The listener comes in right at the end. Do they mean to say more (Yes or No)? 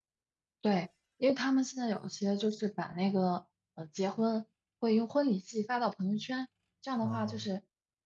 No